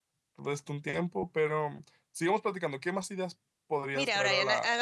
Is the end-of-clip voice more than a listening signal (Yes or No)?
Yes